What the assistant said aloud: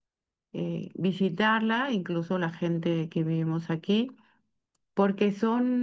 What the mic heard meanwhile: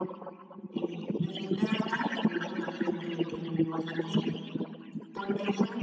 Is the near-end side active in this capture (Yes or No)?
No